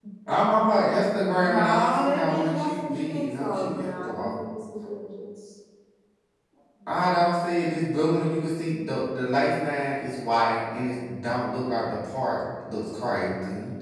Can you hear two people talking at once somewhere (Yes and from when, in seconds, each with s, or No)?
Yes, from 1.4 s